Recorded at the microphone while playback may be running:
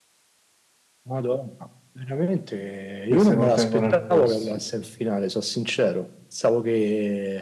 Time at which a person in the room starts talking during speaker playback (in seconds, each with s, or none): 3.1 s